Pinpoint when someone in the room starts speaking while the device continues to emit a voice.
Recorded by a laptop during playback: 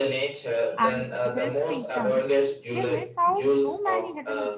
0.8 s

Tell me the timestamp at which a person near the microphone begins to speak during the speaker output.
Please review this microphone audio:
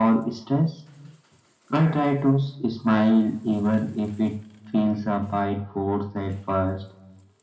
none

